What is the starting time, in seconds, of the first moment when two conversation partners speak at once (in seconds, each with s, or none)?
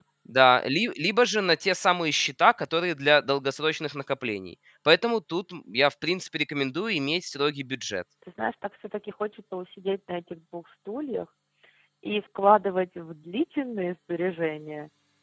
none